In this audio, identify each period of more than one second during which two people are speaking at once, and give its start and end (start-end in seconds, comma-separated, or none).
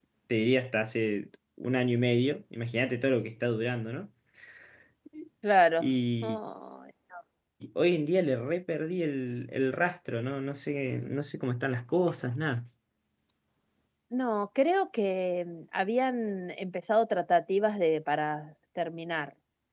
none